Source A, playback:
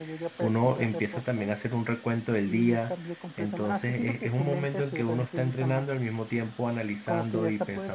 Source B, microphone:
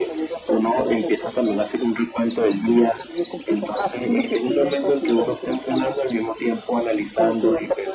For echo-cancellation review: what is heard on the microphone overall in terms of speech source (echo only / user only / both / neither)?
echo only